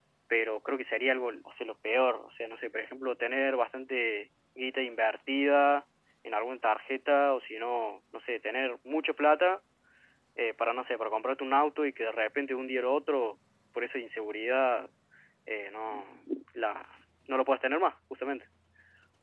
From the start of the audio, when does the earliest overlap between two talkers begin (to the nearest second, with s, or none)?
none